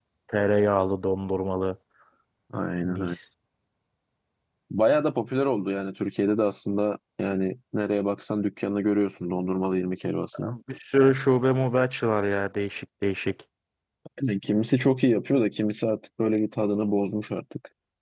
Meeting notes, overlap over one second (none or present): none